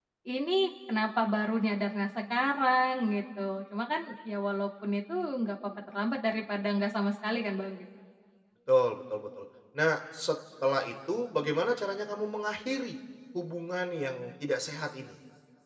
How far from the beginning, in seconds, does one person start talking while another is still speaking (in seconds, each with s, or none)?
none